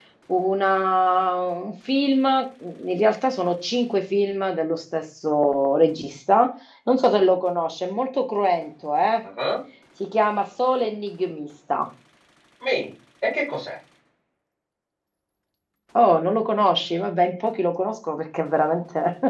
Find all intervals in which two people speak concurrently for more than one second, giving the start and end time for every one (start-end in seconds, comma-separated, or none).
none